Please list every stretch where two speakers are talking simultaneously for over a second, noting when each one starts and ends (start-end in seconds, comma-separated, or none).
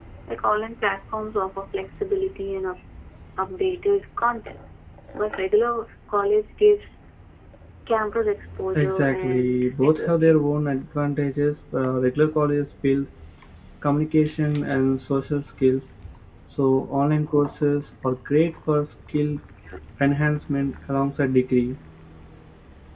8.8-10.4